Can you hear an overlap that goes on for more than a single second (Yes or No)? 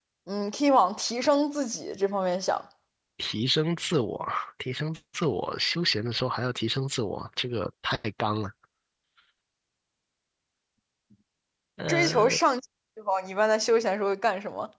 No